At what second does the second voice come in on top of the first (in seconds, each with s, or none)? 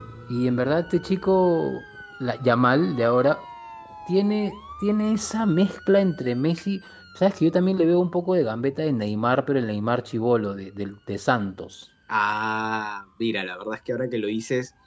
none